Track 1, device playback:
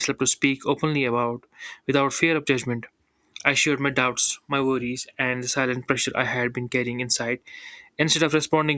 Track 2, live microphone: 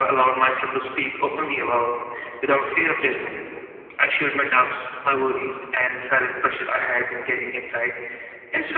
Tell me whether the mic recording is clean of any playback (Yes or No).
No